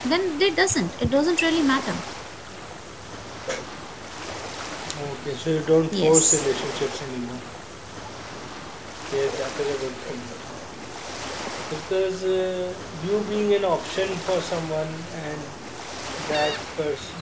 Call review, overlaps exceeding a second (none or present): none